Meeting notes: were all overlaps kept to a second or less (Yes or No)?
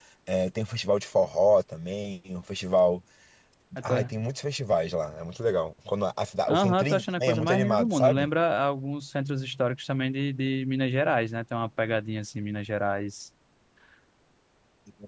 No